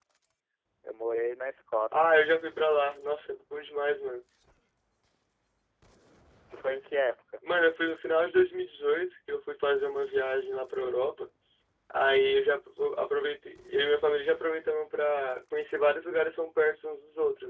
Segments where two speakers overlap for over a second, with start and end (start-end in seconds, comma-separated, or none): none